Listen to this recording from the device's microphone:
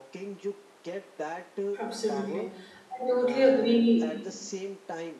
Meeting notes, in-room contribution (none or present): present